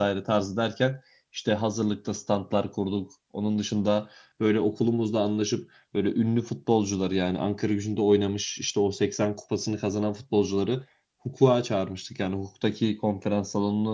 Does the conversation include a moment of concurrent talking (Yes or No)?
No